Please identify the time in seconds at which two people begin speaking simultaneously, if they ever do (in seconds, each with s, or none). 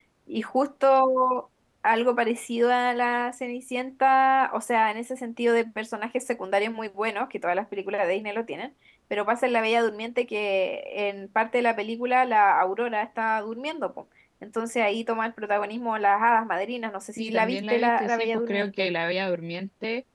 17.2 s